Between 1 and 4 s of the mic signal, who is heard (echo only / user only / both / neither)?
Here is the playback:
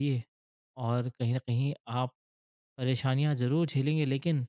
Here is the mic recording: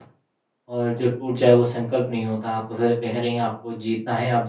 user only